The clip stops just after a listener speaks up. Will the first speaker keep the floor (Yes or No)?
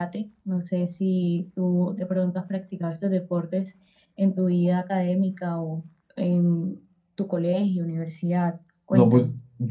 No